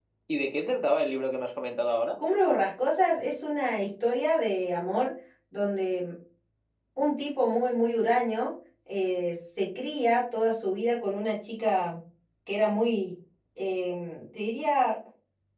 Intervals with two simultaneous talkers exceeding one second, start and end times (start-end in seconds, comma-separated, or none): none